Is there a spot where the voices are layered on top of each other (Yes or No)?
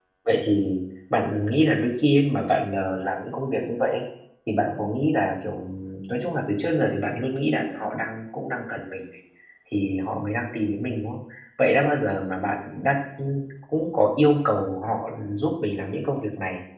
No